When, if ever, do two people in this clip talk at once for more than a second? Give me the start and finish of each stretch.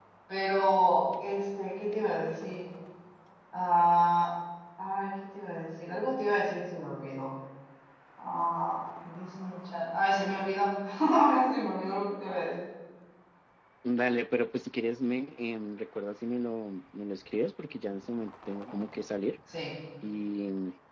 none

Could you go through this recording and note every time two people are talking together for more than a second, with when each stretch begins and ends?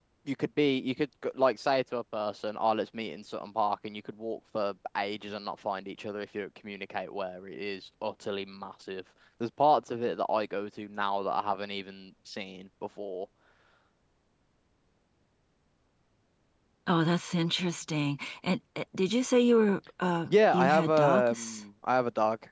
20.2-21.6

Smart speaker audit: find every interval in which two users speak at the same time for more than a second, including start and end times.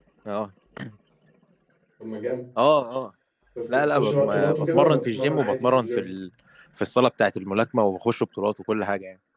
3.7-6.0

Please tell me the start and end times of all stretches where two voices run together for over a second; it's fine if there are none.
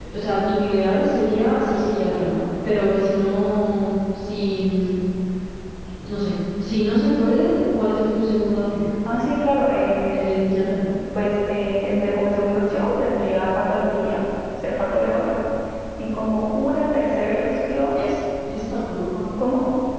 none

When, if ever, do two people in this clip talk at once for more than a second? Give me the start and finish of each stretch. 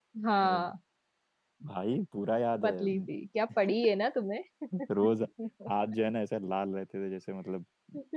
none

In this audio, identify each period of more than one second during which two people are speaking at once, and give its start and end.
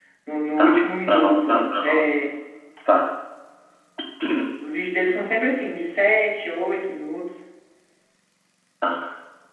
0.6-2.0

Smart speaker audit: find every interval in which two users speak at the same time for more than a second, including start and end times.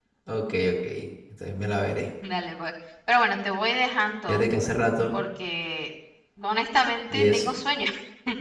none

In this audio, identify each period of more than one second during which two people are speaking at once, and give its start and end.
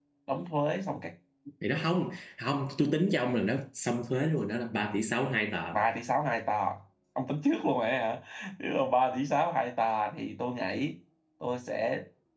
none

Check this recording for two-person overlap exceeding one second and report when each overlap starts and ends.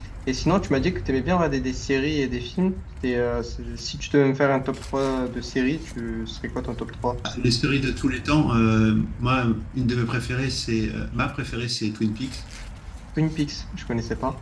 none

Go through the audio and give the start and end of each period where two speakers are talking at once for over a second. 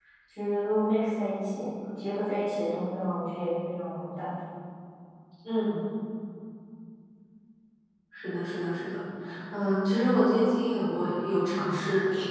none

